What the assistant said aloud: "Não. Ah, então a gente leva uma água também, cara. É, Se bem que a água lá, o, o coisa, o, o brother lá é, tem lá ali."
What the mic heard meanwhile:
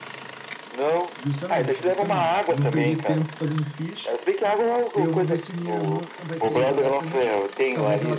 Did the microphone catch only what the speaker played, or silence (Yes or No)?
No